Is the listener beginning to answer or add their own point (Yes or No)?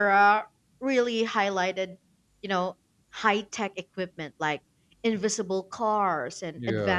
No